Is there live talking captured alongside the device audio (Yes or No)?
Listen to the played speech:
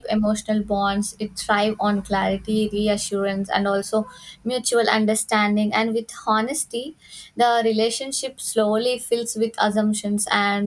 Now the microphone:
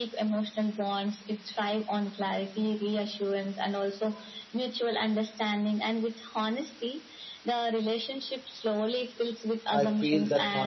Yes